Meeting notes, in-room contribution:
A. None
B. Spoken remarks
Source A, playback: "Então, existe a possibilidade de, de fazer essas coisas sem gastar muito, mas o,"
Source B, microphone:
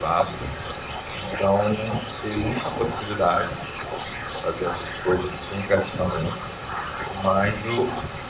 A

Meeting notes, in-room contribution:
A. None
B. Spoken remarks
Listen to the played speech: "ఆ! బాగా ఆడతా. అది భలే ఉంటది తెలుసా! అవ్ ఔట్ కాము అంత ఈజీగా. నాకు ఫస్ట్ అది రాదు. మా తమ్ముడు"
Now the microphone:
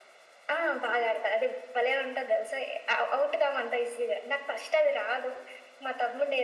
A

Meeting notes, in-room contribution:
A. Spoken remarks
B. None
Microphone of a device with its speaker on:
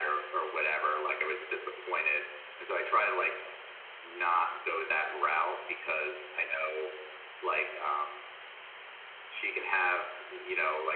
B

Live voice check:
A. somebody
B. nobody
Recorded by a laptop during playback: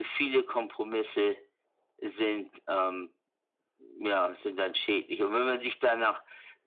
B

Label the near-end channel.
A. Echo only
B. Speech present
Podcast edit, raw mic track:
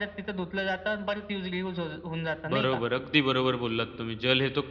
B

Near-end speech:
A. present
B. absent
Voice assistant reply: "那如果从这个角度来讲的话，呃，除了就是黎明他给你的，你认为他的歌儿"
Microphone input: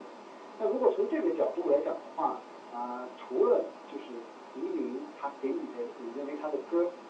B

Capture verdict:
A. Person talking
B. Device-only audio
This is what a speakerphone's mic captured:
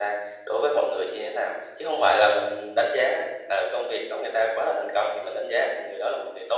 B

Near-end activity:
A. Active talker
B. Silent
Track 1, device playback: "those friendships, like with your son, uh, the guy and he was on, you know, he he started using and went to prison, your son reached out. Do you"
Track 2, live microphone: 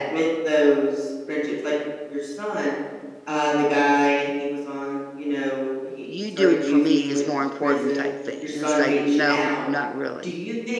A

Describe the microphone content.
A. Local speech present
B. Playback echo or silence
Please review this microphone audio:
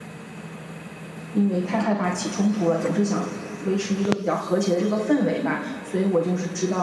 A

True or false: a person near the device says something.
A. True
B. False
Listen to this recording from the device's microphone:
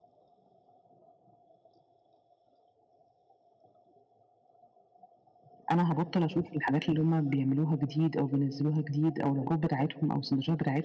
A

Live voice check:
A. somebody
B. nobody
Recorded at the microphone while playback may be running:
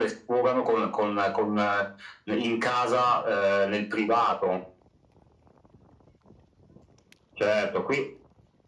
B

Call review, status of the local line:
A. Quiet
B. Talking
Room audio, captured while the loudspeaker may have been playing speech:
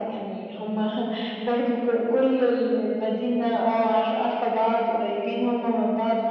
A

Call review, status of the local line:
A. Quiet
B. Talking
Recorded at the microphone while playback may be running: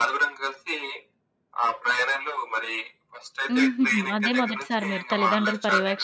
B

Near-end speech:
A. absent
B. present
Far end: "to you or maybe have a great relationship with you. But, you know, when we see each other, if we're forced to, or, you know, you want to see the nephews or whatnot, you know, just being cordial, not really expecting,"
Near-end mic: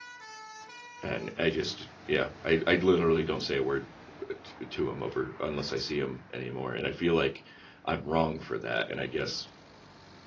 B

